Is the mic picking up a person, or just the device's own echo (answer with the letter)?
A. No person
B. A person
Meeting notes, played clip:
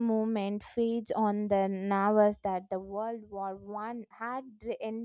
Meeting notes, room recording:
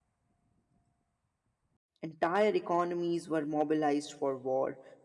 B